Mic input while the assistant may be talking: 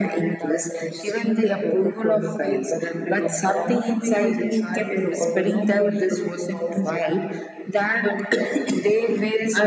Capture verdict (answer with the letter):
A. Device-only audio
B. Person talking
A